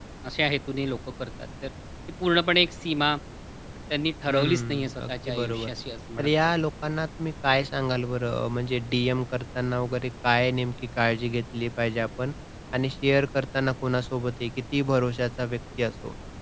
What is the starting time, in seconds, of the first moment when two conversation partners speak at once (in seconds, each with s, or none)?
4.3 s